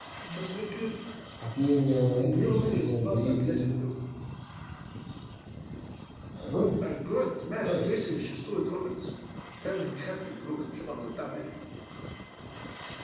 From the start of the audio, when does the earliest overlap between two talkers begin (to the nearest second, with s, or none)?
2 s